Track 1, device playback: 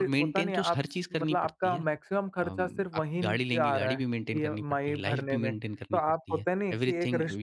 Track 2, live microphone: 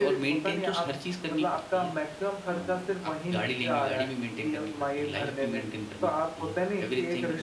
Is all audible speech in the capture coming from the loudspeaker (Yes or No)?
Yes